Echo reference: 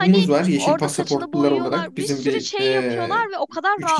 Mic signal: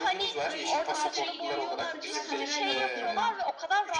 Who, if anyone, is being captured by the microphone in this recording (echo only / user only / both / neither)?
both